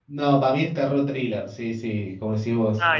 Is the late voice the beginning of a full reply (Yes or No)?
No